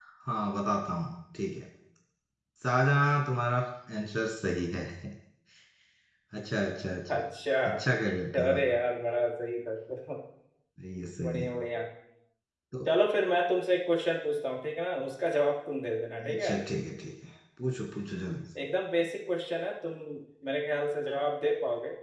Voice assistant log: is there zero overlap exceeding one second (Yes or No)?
Yes